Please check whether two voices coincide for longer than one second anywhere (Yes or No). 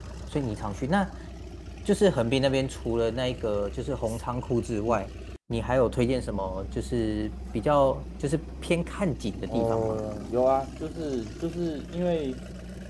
No